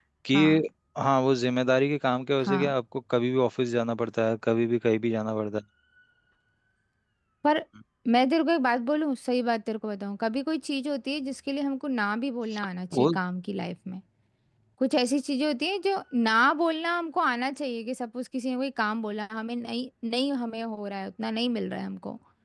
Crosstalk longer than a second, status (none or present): none